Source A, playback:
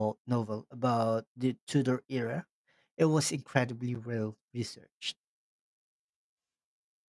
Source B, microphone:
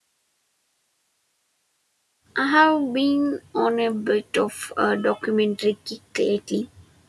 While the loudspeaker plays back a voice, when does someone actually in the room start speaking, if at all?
2.4 s

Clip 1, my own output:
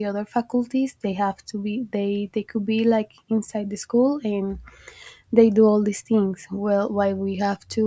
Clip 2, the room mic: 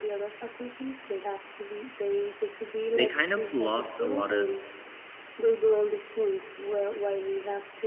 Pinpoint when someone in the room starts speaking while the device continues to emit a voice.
2.9 s

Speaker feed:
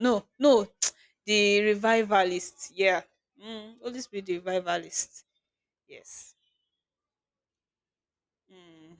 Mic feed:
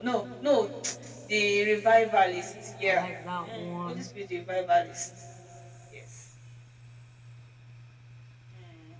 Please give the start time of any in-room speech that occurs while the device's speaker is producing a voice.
2.8 s

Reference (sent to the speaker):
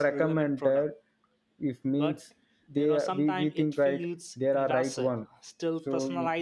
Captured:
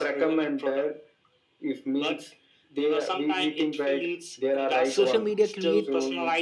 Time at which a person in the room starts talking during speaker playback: 4.9 s

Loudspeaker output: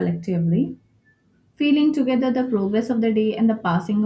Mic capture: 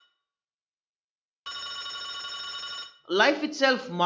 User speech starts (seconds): 3.1 s

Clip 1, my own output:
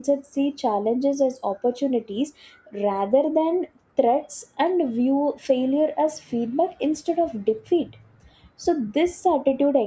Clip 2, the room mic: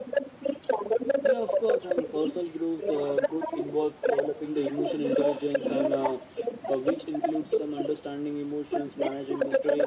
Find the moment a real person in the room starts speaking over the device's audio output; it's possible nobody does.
1.2 s

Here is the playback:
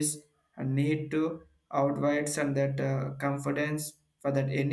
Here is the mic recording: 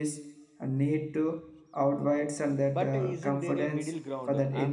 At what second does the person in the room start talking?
2.7 s

